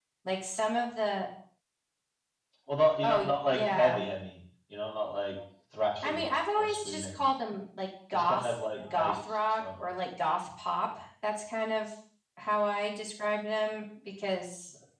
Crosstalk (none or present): present